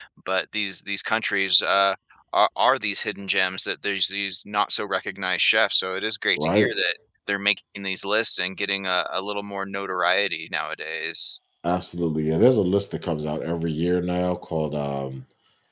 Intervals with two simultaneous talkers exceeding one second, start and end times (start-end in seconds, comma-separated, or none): none